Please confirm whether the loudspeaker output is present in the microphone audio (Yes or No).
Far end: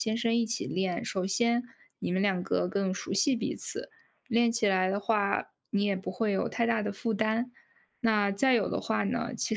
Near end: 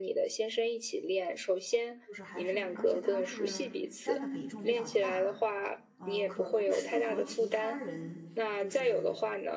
Yes